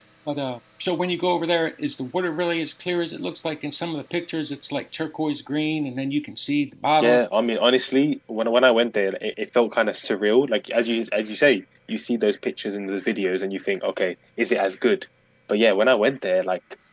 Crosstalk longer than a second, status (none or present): none